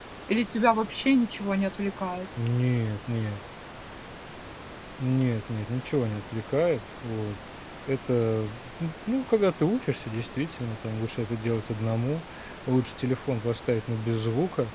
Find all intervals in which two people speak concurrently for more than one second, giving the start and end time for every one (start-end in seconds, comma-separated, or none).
none